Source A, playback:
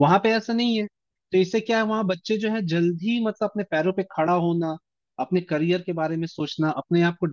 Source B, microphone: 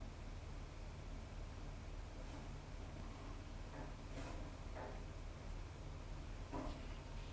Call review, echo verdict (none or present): none